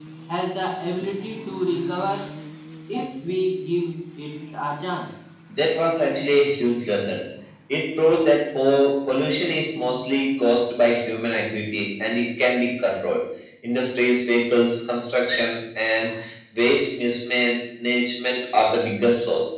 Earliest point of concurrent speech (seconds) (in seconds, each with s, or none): none